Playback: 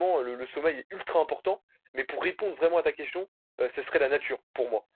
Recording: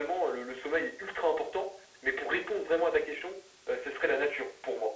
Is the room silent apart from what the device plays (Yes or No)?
Yes